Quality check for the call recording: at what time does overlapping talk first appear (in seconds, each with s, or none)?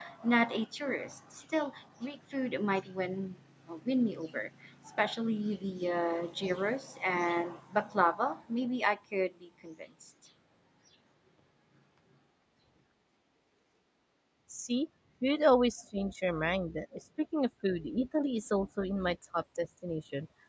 none